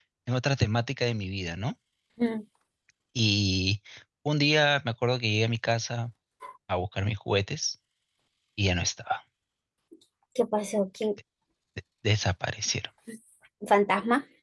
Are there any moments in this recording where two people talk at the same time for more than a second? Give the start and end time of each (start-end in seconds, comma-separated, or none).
none